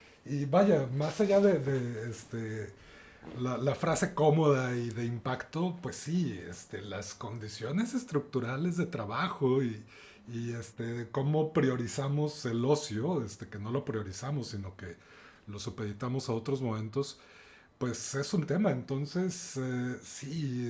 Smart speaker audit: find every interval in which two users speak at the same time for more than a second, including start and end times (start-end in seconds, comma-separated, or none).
none